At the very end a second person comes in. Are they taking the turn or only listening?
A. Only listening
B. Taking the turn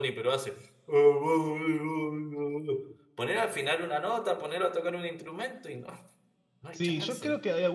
B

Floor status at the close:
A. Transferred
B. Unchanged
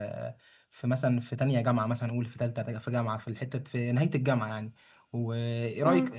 B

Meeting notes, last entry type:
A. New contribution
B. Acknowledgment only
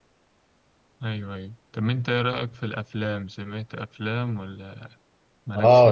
A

